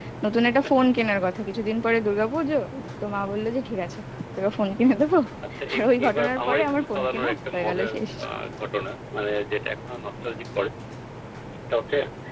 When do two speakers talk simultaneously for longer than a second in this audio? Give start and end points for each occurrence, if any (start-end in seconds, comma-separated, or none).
5.7-8.0